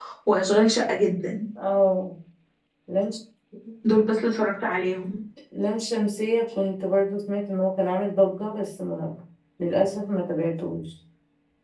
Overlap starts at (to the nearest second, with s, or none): none